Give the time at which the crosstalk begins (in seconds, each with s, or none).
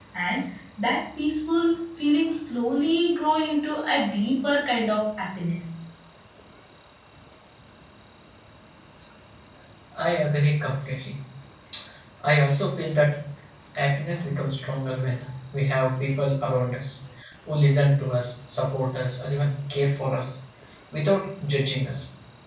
none